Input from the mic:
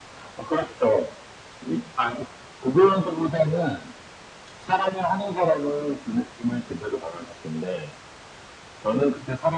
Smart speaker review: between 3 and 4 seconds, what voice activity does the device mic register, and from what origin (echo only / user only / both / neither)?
echo only